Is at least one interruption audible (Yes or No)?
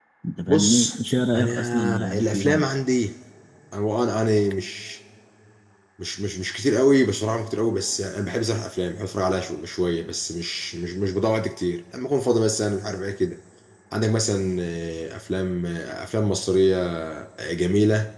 Yes